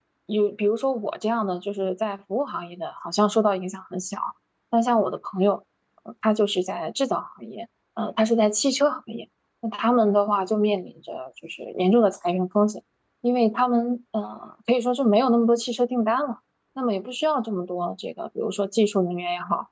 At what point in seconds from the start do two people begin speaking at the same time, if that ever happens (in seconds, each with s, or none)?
none